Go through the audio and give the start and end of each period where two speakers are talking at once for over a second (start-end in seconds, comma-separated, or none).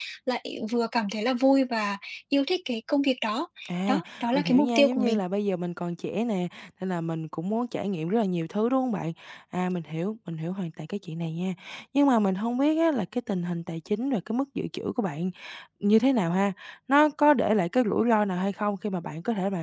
3.9-5.2